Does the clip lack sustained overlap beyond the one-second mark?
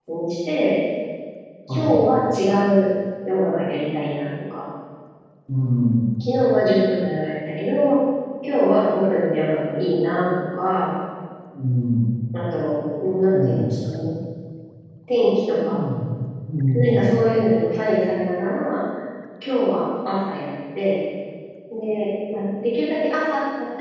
Yes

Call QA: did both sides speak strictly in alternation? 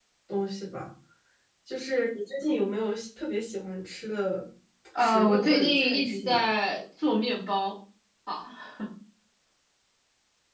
No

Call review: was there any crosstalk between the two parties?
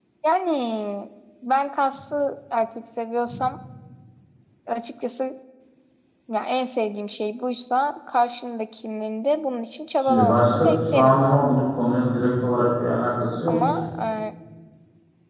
Yes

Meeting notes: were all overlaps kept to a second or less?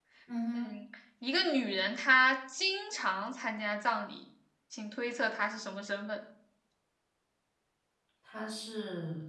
Yes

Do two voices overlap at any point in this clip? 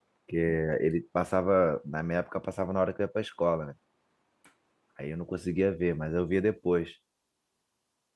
No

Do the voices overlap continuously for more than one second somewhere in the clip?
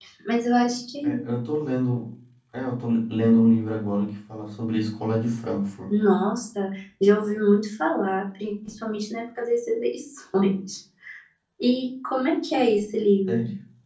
No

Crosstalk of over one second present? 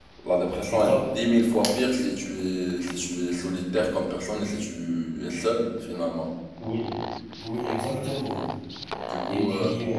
No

